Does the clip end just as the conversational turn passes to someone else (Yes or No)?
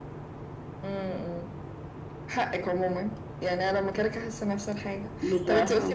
No